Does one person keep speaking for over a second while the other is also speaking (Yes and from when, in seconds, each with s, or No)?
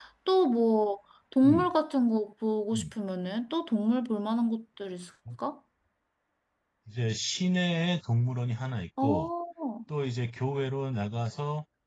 No